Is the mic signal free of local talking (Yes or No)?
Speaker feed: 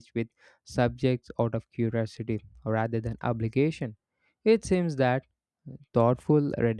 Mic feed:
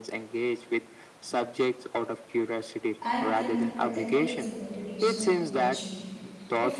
No